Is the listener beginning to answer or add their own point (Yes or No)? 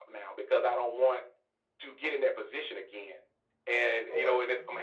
No